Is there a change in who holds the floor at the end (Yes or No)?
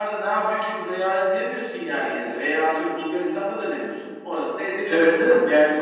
Yes